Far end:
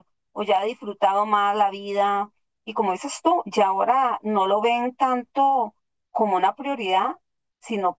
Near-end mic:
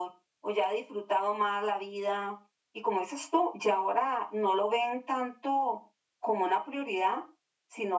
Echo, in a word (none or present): present